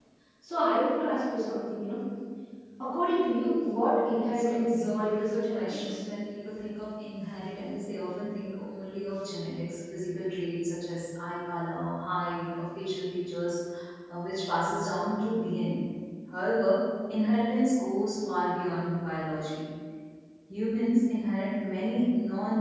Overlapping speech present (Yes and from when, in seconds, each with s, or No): Yes, from 4.0 s